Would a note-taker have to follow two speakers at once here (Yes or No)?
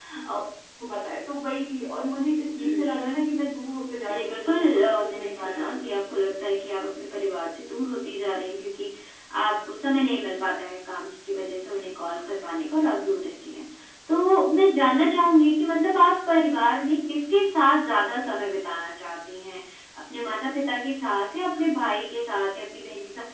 Yes